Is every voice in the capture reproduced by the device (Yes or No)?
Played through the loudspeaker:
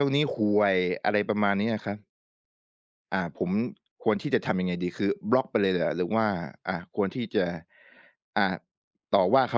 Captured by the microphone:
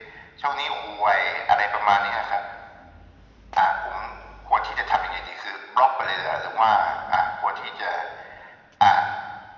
Yes